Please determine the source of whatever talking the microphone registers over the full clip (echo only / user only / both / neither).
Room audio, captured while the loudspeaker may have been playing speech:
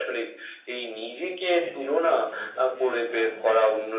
both